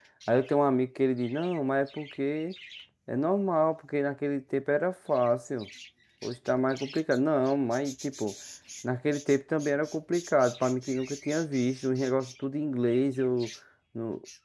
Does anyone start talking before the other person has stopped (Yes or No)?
No